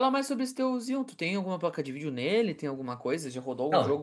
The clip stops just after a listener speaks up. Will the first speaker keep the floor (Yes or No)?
No